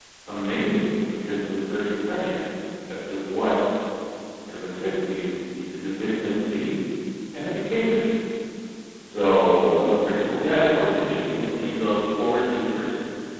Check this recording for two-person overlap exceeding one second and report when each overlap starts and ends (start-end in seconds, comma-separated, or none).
10.4-11.7